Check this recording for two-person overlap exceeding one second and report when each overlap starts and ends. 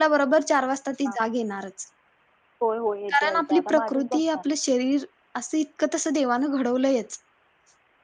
3.1-4.4

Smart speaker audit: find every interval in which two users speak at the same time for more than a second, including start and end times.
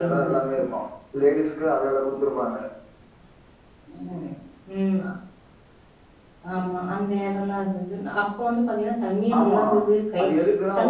none

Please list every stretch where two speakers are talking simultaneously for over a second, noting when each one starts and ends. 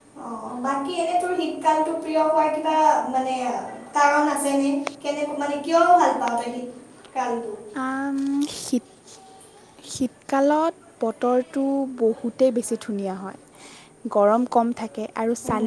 none

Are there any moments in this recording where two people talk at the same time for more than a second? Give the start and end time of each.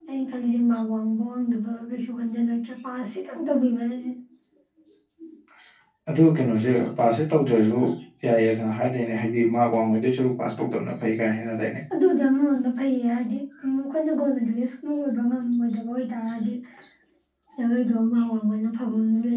none

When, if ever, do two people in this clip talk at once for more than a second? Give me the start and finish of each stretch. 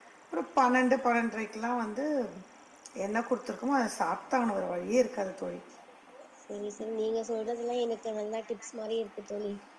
none

